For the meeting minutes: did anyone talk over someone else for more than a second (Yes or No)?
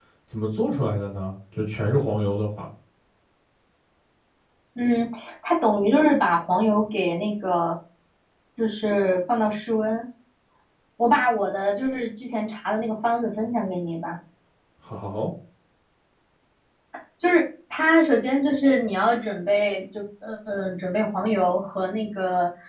No